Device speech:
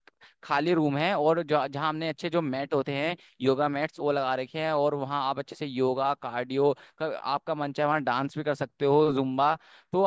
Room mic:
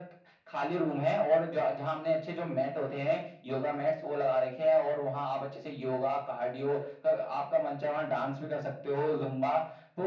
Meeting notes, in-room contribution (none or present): none